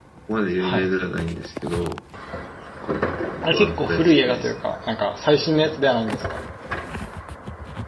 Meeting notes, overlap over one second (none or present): present